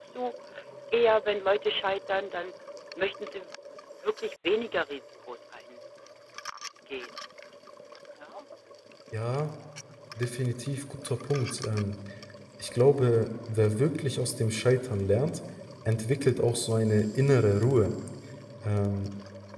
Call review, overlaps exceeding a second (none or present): none